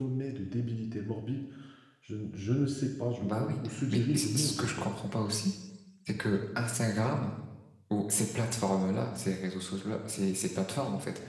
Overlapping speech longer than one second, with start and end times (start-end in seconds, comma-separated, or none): 3.2-4.9